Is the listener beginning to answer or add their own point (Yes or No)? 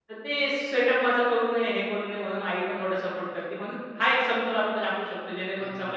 Yes